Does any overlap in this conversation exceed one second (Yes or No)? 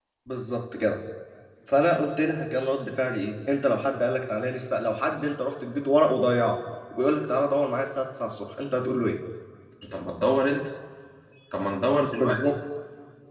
No